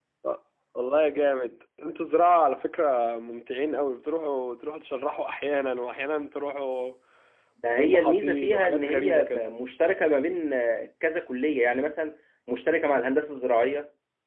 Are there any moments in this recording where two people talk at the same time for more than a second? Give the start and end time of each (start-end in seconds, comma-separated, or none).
7.7-9.4